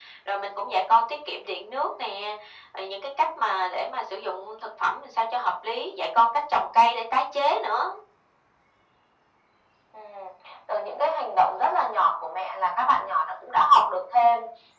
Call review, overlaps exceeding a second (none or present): none